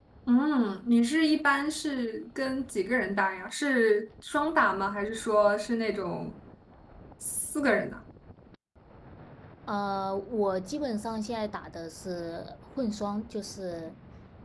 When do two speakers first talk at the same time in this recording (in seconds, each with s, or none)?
none